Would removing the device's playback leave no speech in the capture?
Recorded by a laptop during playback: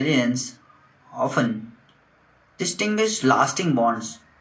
Yes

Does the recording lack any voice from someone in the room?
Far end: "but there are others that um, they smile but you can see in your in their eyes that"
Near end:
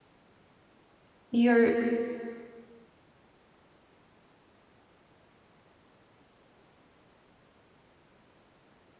No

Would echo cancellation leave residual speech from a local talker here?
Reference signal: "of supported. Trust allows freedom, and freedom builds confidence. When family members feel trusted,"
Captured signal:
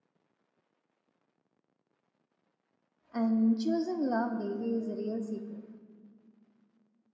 Yes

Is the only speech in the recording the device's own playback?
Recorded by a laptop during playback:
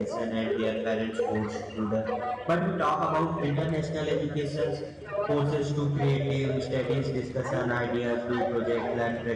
No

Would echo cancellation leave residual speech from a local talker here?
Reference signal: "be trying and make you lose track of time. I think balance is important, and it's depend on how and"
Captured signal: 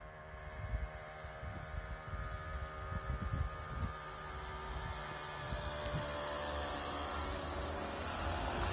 No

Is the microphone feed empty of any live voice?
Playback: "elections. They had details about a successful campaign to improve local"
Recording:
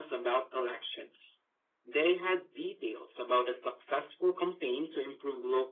Yes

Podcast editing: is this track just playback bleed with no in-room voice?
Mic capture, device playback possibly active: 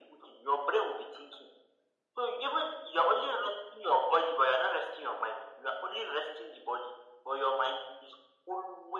Yes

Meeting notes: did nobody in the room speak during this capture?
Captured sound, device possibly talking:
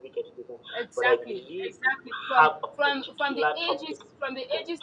No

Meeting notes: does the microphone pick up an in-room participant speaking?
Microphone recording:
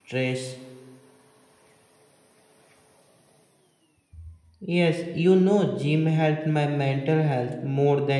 Yes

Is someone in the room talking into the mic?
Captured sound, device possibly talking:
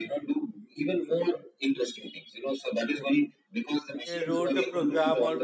Yes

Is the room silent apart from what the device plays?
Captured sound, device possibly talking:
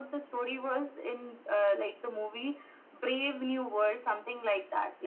Yes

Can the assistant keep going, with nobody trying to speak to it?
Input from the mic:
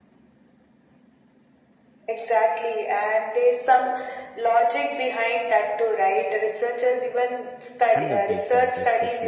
No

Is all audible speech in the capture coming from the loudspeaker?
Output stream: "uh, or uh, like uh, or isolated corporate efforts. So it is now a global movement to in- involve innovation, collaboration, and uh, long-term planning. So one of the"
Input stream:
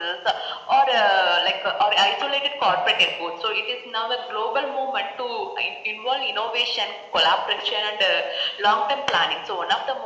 Yes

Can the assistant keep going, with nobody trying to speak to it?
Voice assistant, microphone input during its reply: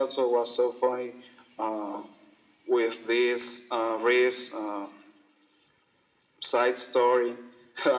Yes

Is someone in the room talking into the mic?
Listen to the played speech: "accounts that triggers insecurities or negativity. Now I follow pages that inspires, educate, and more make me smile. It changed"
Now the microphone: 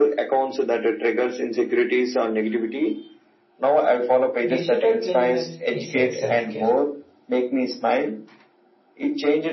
Yes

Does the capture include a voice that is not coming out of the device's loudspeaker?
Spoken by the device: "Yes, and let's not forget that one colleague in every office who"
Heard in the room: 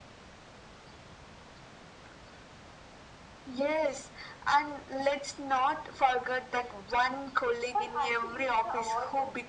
Yes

